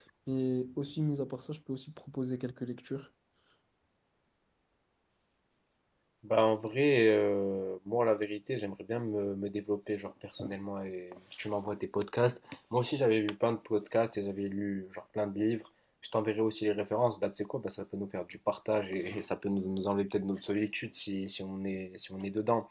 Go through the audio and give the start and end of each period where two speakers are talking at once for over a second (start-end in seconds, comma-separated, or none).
none